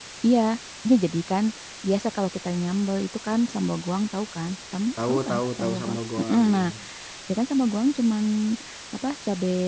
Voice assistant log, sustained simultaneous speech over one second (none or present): present